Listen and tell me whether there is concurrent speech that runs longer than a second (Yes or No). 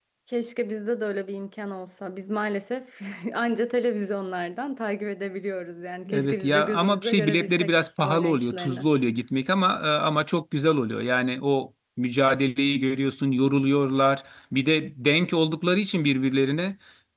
Yes